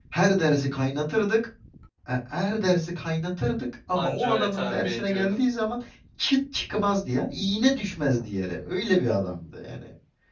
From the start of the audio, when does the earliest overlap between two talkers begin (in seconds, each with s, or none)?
3.9 s